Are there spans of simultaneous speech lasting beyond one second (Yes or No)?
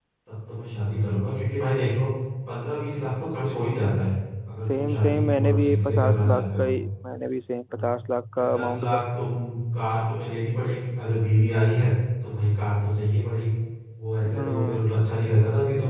Yes